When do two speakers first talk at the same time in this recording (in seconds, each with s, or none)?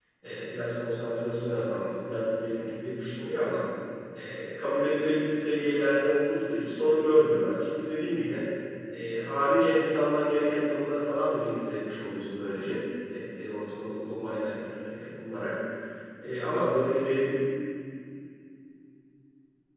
none